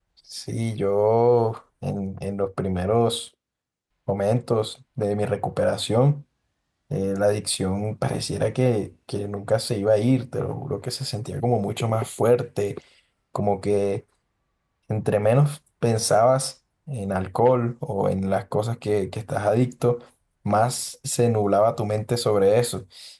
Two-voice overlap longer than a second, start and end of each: none

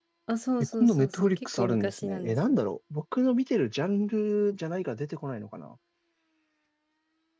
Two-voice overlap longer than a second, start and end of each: 0.6-2.6

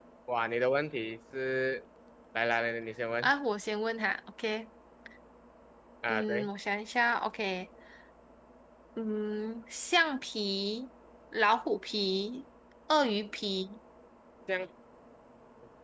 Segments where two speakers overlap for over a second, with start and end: none

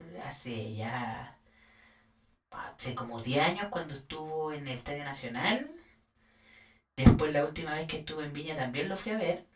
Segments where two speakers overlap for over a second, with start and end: none

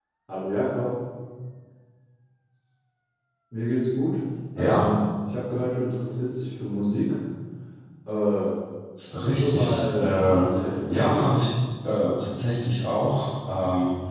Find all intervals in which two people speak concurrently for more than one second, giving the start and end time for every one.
9.1-10.4

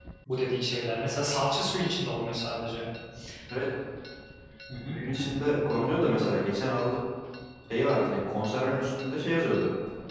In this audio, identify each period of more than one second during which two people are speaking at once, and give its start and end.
none

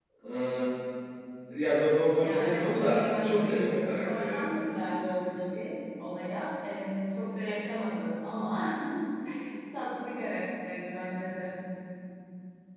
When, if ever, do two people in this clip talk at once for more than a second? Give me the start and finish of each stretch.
2.2-4.4

